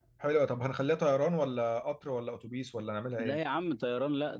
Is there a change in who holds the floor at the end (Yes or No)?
Yes